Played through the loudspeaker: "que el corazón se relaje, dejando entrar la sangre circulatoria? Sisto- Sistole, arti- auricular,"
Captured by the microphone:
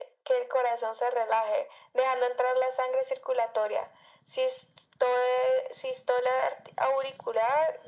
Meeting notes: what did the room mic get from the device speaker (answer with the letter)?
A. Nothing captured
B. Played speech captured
B